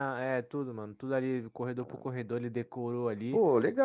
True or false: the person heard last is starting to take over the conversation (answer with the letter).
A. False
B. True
B